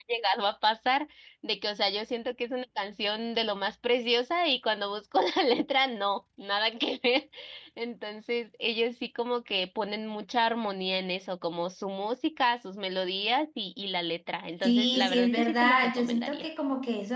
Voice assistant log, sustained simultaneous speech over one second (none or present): present